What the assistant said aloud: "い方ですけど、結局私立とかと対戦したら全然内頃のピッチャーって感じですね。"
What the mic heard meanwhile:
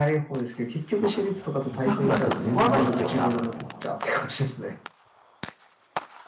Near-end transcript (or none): まあ、痛くなっても言わないですよね、あんまり。